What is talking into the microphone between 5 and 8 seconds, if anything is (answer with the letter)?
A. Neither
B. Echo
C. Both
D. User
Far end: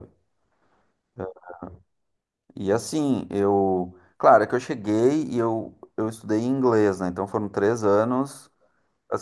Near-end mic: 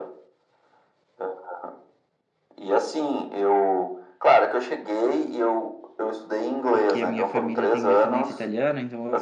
C